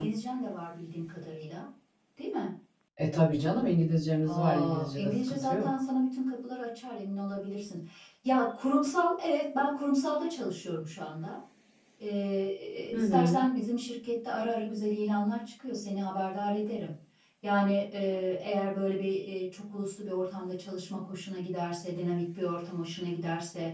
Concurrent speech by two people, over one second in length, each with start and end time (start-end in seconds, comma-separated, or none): 4.2-5.7